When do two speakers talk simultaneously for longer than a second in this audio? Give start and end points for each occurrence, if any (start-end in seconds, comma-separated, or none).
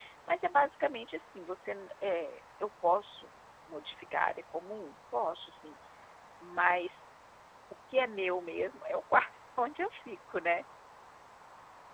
none